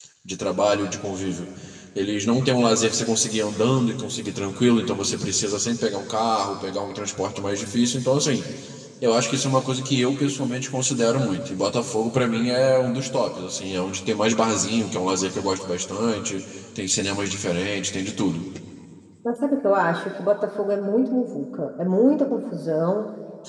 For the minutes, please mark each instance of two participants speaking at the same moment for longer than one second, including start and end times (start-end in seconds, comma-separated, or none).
none